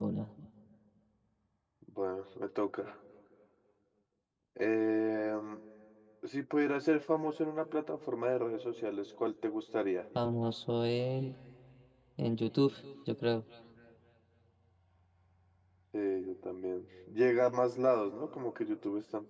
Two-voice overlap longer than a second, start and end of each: none

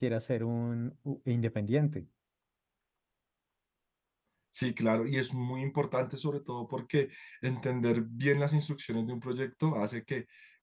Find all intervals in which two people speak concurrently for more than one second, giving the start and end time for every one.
none

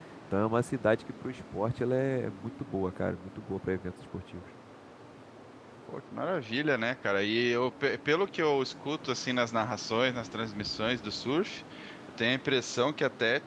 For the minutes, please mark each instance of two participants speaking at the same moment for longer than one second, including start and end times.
none

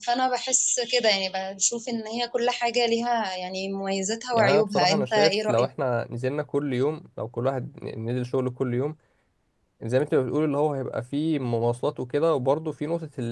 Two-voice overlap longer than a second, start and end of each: 4.3-5.7

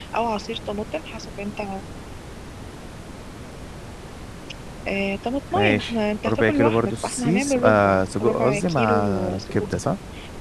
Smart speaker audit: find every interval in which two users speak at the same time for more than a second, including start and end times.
5.5-9.5

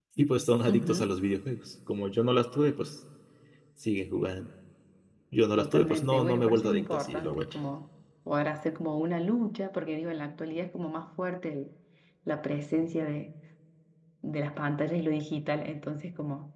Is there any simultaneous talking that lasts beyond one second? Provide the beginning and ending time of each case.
5.6-7.5

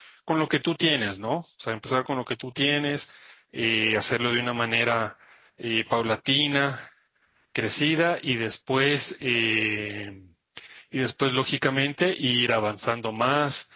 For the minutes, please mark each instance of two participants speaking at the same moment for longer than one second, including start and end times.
none

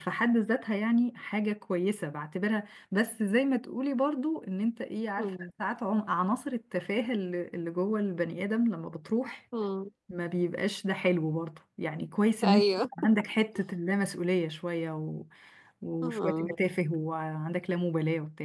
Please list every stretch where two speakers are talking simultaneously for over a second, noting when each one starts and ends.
none

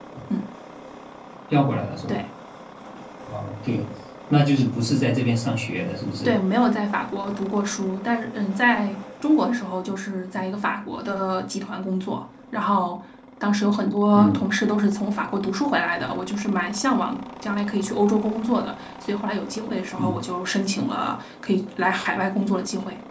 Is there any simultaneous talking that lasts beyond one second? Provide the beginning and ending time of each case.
none

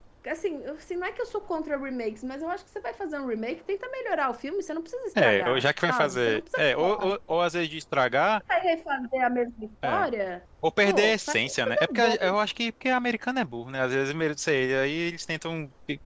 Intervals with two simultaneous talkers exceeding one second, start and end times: 5.2-7.1, 10.8-12.3

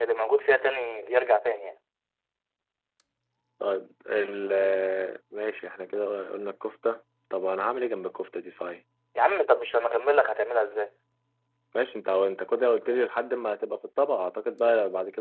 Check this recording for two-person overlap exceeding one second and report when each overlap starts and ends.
none

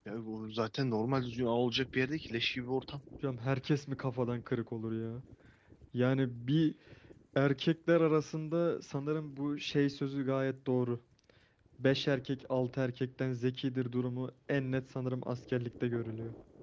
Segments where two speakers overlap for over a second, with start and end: none

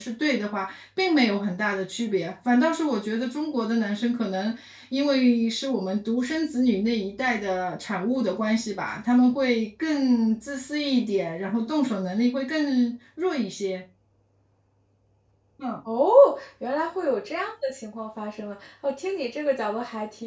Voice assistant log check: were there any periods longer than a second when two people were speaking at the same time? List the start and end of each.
none

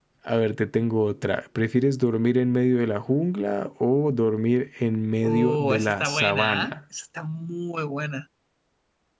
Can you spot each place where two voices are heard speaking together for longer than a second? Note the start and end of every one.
5.2-6.8

